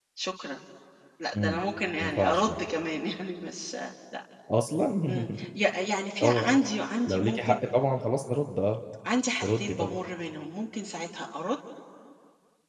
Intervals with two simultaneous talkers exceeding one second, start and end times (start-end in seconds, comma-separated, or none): none